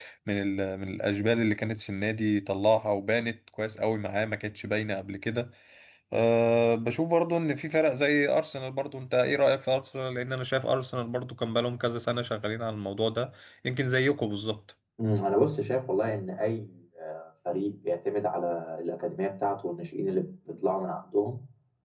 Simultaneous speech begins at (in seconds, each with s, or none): none